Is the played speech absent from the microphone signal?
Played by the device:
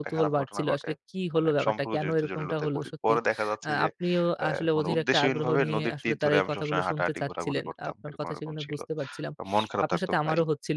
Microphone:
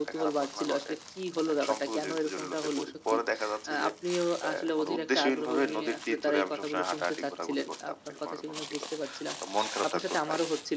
No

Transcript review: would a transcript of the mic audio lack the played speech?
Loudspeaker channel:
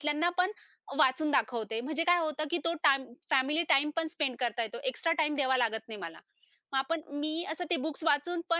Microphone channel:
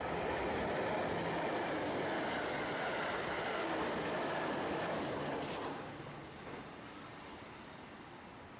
Yes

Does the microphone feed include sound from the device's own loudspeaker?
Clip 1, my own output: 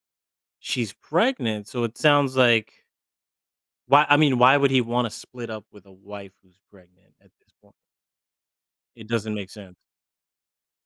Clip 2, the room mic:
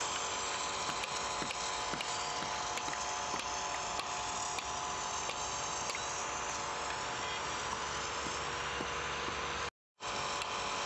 No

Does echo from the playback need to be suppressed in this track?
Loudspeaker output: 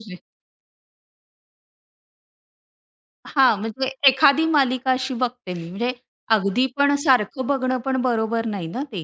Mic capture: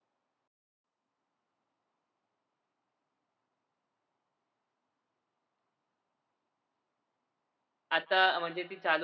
No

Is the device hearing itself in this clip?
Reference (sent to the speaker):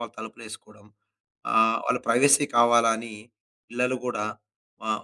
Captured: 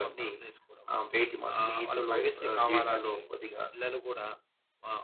Yes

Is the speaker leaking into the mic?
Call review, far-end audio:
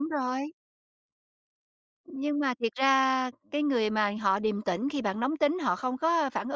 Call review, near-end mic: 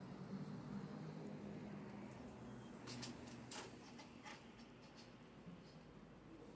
No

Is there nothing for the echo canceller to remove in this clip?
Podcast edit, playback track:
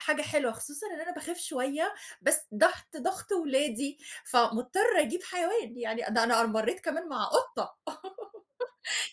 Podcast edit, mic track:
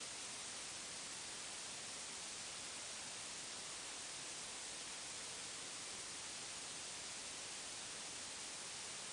Yes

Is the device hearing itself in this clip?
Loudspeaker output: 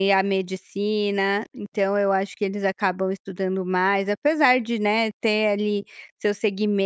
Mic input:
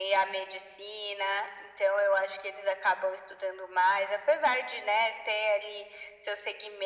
Yes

